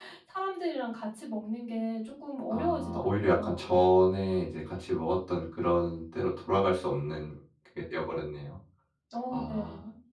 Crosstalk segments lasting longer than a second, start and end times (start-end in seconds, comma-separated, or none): 2.5-3.8